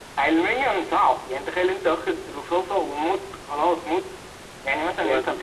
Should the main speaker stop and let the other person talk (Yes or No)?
No